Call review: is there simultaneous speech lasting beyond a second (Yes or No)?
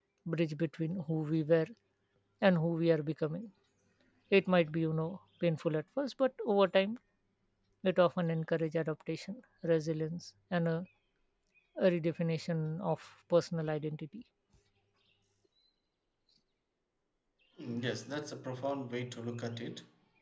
No